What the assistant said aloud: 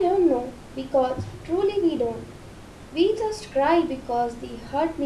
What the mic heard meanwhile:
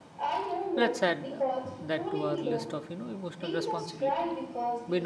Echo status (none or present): present